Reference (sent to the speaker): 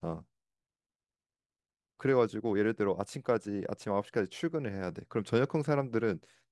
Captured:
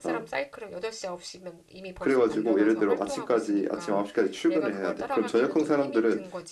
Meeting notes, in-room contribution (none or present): present